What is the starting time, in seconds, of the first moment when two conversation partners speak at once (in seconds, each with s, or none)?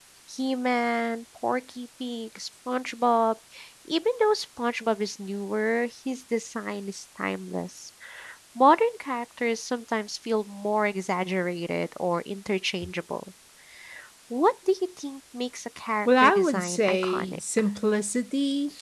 16.1 s